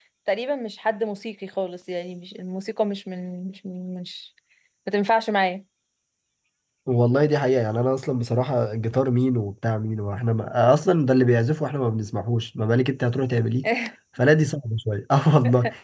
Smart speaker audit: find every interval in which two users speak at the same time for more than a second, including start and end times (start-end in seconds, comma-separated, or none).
none